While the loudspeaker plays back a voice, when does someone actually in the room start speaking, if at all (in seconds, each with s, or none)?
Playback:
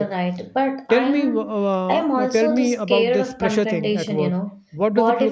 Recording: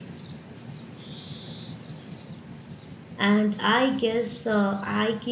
3.3 s